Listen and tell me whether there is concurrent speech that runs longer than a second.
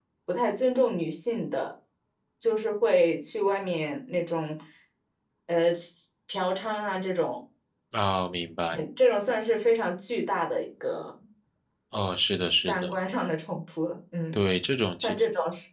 No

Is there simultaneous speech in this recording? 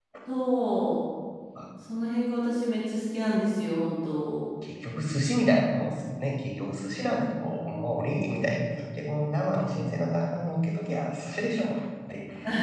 No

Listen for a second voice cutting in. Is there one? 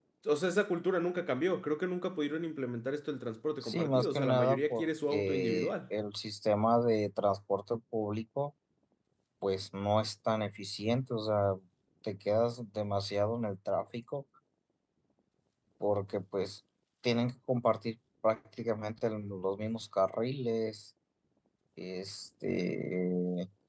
Yes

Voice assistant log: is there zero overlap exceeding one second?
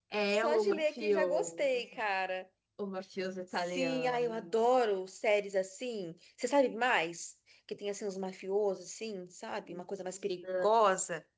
No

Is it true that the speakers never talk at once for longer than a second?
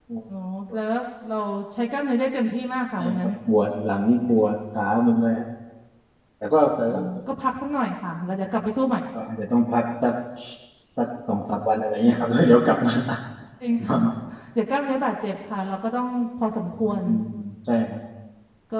Yes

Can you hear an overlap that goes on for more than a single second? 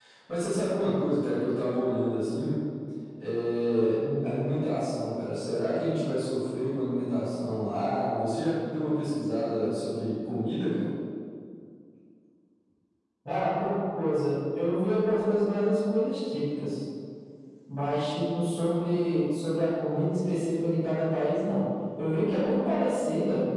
No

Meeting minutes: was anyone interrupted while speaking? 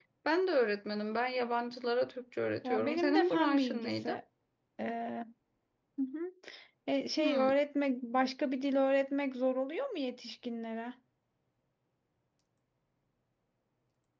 Yes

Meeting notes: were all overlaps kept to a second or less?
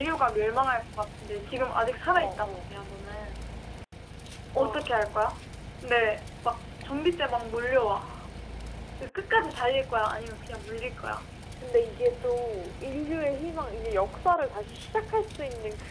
Yes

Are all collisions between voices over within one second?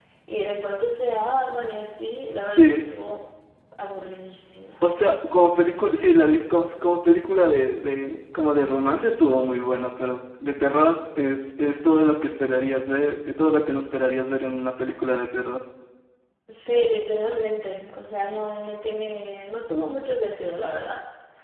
Yes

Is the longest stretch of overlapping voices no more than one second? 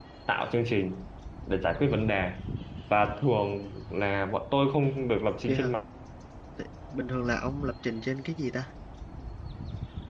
Yes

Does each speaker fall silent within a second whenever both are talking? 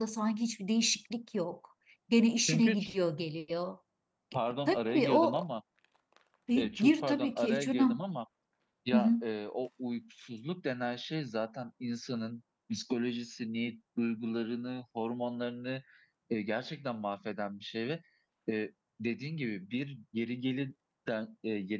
No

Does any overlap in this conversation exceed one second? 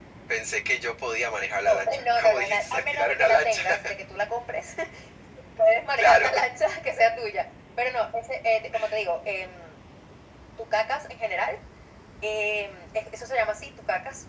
Yes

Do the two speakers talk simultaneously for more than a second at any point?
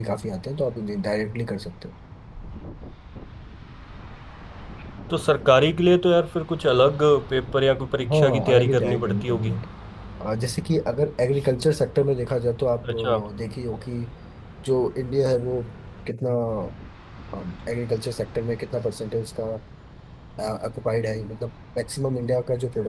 Yes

